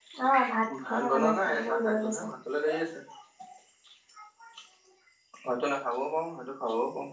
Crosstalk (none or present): present